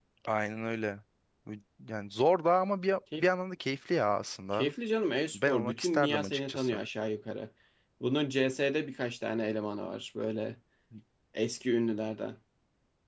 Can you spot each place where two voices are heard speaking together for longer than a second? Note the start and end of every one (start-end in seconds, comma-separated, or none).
5.3-6.8